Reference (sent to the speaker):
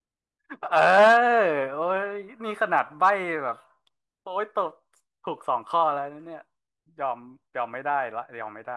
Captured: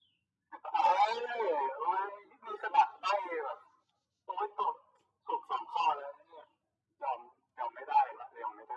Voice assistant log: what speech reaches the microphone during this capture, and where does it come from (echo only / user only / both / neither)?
echo only